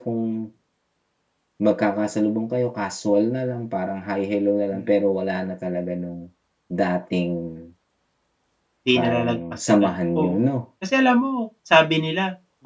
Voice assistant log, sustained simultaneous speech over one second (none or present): present